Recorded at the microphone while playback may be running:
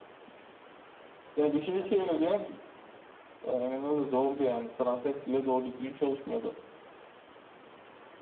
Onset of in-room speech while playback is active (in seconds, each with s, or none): none